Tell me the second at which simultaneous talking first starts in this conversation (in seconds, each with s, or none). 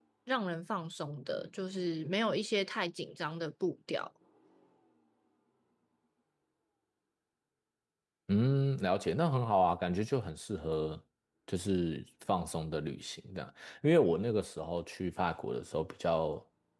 none